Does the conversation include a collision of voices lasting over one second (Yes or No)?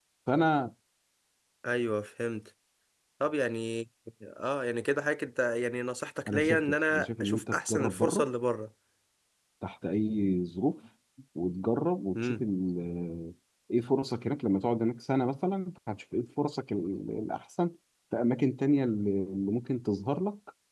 Yes